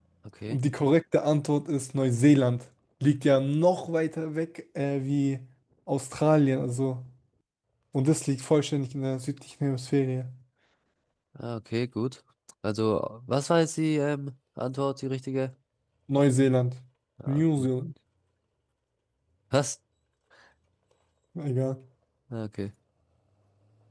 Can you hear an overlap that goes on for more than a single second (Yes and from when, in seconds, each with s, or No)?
No